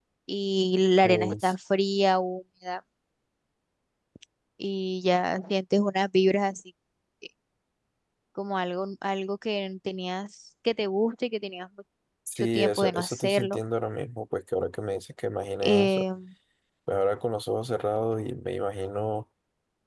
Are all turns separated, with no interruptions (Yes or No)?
No